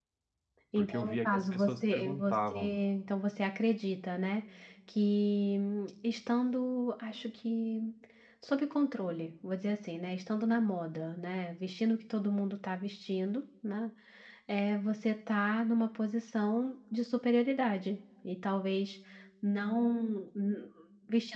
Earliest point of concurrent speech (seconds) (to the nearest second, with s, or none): 1 s